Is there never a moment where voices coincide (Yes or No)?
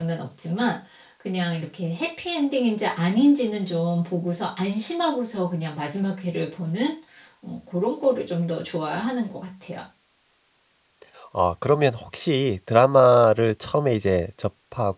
Yes